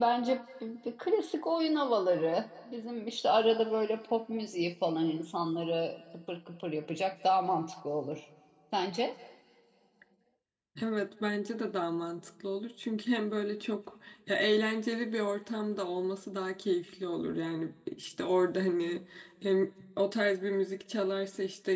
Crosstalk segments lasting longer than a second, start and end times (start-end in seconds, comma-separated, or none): none